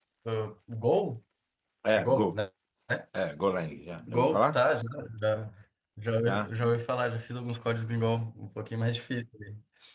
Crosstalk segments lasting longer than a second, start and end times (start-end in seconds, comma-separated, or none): none